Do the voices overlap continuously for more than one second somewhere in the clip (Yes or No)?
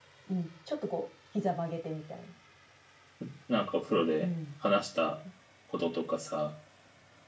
No